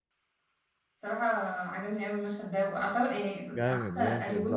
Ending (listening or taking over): taking over